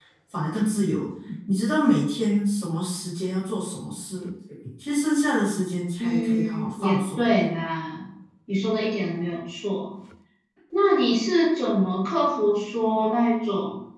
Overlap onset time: 6.0 s

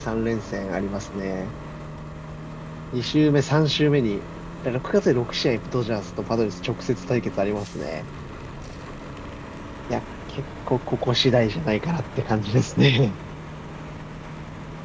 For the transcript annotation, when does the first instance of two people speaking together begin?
none

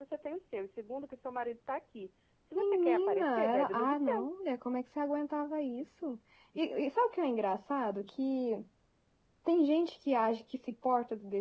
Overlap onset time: 2.5 s

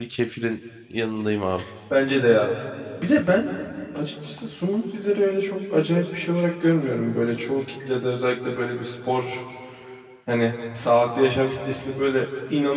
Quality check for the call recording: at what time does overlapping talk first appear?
none

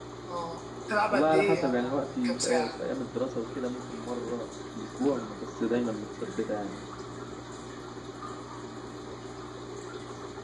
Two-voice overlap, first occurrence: 1.1 s

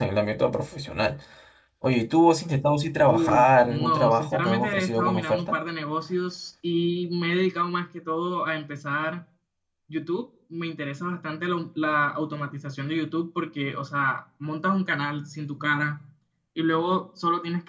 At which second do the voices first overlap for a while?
3.1 s

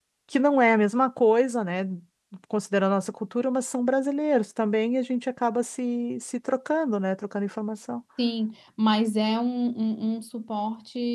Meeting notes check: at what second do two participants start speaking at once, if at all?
none

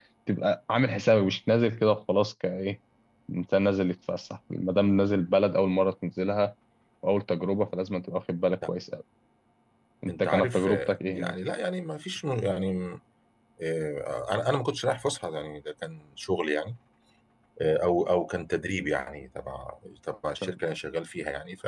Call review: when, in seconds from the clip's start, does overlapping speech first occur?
10.1 s

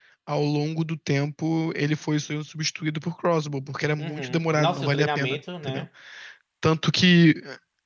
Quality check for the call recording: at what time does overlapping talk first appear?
4.0 s

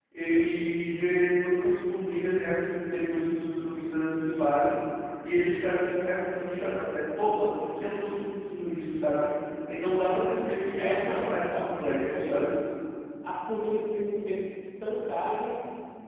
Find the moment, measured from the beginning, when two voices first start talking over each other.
10.8 s

